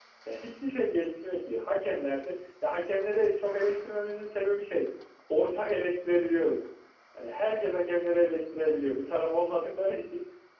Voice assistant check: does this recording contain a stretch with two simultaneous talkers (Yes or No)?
No